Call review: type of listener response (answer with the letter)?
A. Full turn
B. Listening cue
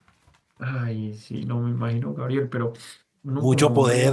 A